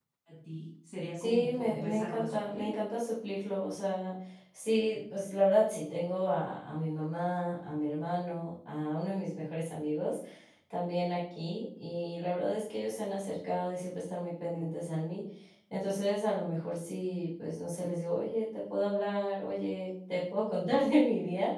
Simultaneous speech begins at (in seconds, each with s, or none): 1.2 s